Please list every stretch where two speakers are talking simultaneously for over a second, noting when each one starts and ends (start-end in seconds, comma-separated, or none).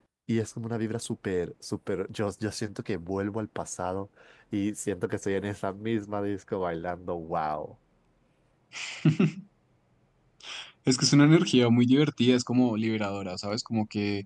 none